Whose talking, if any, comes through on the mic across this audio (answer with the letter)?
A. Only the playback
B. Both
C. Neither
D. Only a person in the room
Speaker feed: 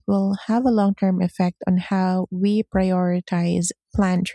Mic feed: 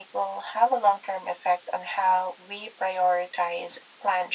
A